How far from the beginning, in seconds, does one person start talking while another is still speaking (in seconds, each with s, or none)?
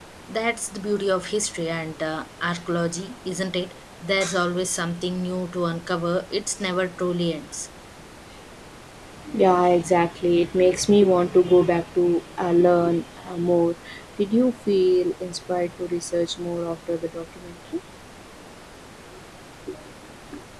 none